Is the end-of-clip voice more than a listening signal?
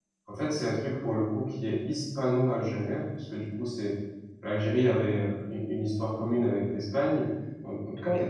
No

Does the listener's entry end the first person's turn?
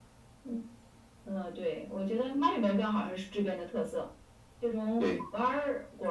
No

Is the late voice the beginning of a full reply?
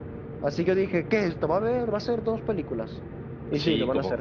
Yes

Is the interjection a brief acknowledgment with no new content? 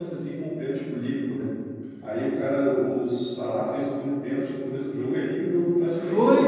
No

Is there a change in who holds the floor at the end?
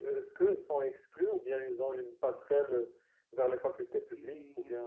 Yes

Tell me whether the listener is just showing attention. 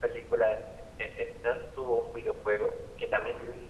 Yes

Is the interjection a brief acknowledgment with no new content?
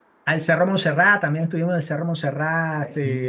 Yes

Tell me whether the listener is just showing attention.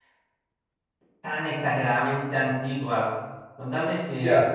Yes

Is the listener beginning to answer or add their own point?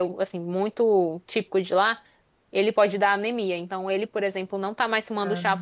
No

